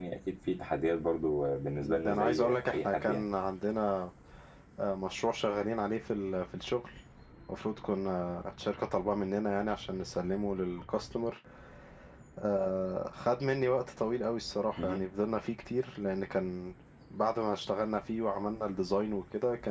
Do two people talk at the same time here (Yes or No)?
Yes